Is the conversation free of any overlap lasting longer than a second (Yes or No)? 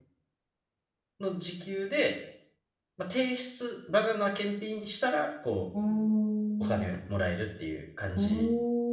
Yes